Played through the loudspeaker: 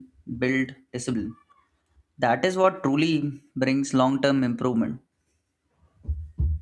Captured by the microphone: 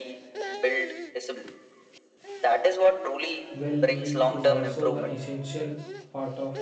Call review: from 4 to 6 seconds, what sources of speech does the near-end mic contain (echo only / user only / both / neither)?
both